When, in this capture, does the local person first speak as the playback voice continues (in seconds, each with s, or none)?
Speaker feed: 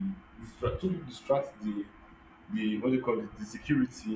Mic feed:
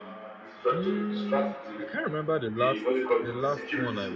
0.7 s